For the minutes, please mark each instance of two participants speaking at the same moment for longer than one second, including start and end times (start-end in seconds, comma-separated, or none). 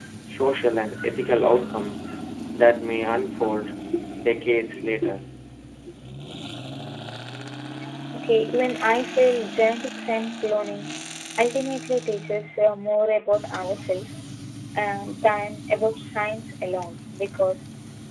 none